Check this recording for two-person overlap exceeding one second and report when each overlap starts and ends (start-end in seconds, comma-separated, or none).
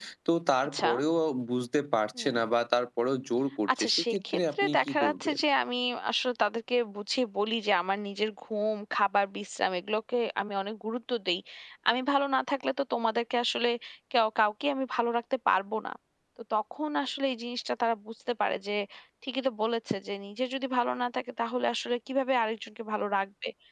3.8-5.4